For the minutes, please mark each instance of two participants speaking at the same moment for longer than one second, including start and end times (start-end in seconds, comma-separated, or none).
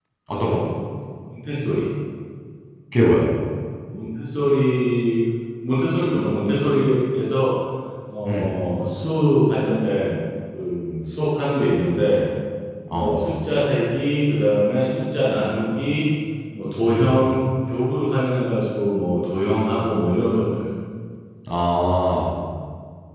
none